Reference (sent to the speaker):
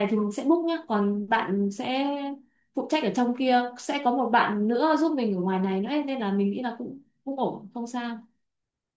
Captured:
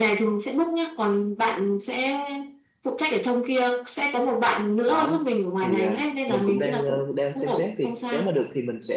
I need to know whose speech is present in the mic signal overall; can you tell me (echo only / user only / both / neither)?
both